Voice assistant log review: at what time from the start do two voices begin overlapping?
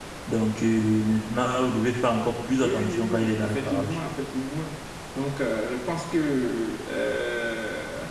2.6 s

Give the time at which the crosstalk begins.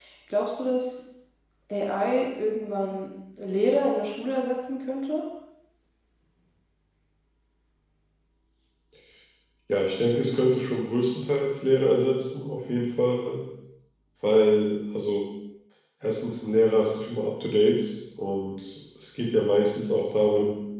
none

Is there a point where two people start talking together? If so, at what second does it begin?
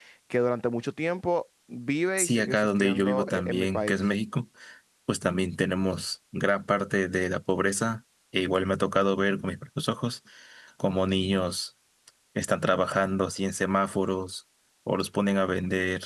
2.2 s

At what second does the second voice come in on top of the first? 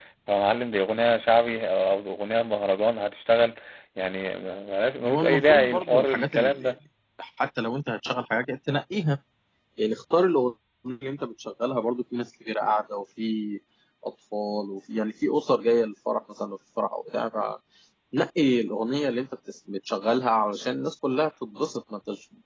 5.0 s

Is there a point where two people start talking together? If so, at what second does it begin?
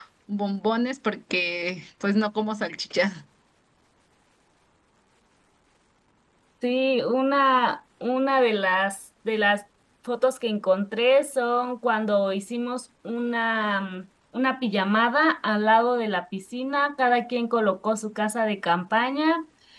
none

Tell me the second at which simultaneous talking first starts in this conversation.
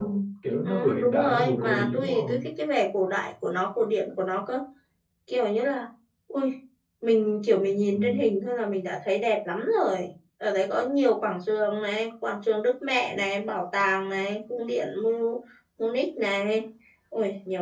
0.6 s

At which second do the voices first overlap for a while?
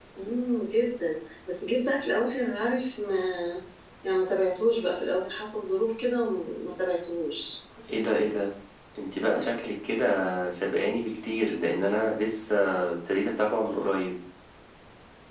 none

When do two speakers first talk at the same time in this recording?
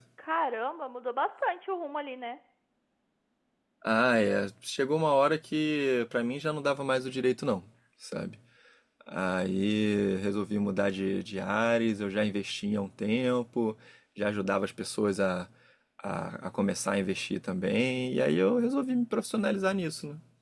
none

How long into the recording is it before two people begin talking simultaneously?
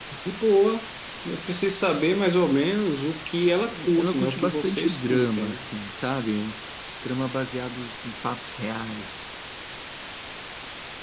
3.6 s

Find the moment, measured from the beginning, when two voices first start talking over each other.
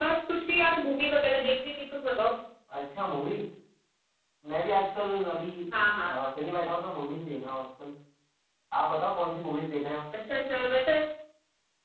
none

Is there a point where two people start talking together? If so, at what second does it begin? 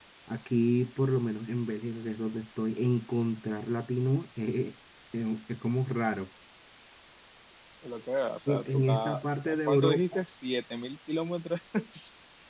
8.5 s

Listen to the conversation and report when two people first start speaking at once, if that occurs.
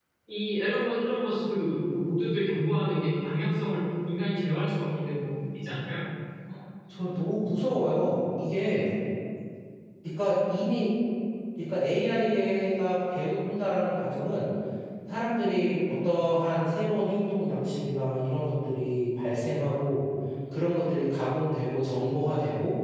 none

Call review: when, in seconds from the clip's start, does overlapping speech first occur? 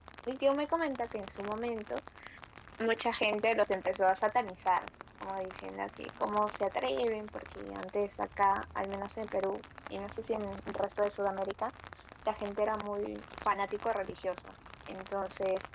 none

